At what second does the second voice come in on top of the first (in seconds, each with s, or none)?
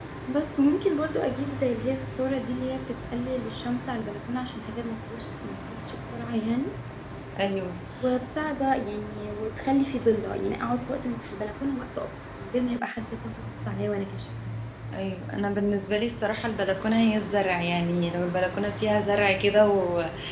none